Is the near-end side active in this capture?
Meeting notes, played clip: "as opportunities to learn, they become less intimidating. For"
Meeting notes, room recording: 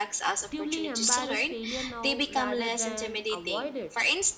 Yes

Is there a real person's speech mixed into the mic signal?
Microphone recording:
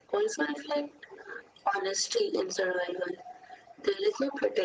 No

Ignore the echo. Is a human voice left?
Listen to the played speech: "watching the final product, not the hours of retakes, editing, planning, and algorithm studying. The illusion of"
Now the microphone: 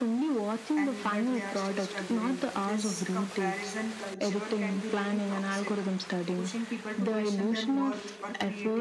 Yes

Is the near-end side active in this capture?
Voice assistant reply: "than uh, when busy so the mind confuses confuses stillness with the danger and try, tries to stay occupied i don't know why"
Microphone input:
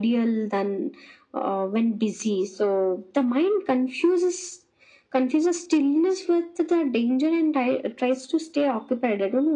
No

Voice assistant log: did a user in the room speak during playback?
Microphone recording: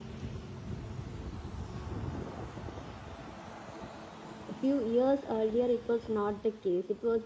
Yes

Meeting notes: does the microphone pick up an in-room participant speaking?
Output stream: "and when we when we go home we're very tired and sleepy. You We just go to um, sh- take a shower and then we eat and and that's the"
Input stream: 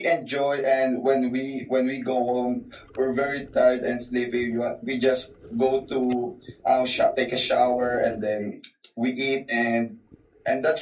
No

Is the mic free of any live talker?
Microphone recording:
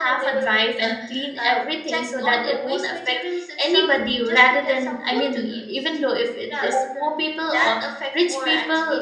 No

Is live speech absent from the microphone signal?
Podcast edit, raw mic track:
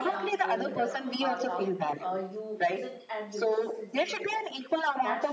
No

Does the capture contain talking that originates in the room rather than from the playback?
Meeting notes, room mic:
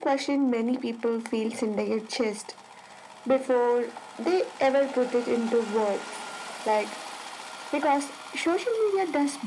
No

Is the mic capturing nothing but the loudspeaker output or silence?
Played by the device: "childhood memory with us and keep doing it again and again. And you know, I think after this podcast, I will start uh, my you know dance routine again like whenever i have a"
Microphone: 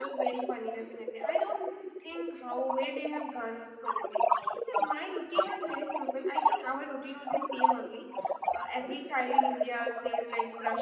No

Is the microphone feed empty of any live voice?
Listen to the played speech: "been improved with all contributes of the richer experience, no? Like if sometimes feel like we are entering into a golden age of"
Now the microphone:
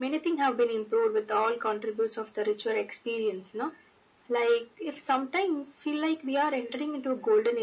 Yes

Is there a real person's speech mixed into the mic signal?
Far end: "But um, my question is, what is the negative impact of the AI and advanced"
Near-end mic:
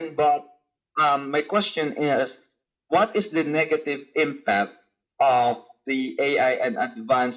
No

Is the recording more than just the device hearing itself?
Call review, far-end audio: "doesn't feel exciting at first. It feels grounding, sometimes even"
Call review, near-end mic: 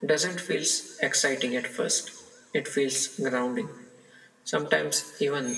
No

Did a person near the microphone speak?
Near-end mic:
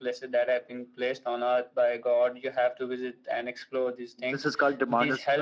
Yes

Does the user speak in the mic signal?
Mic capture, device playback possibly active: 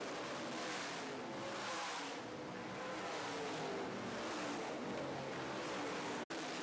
No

